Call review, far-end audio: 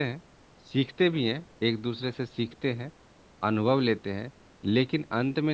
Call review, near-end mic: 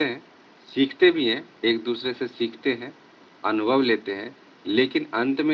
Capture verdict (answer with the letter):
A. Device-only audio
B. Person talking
A